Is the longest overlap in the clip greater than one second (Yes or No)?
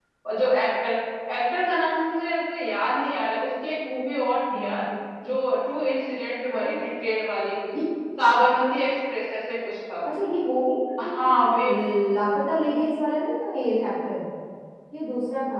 No